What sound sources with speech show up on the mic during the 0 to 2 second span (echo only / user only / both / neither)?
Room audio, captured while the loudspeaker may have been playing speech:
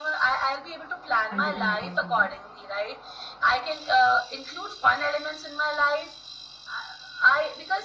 both